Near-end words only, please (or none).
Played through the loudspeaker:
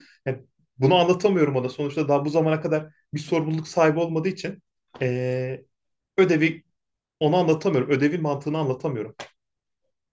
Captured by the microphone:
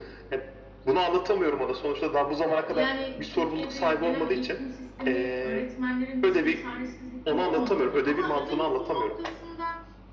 Ee, Yani Türkiye'de gelen eğitim sistemi öğretmenlerin düştüğü çaresizlik bu olmamalı. Ama özel okul noktasında